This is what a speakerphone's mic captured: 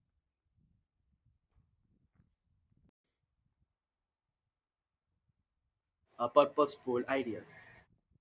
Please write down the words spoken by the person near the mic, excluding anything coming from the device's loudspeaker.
uh, purposeful ideas.

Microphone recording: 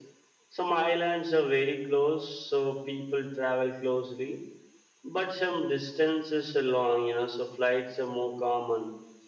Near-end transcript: none

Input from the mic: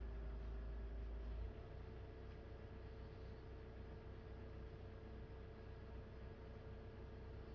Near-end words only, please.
none

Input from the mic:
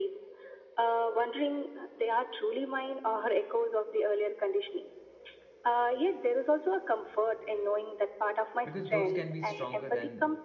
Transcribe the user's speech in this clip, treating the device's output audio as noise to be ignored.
because those can be stronger than

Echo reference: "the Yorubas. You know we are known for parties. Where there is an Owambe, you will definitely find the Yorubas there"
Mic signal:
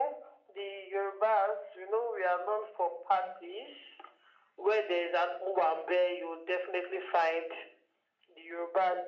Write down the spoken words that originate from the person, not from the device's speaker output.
none

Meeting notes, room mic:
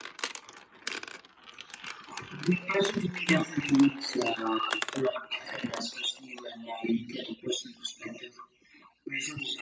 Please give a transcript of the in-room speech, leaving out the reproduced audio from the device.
none

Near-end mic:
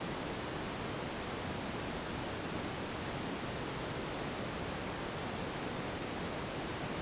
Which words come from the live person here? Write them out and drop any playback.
none

